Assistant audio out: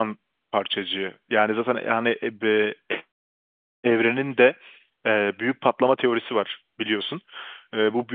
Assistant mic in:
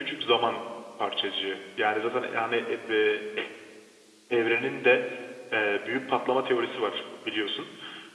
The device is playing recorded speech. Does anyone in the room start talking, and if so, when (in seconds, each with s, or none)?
none